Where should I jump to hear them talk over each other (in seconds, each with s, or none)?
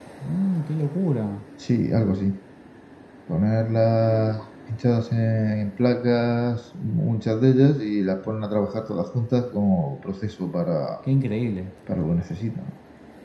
none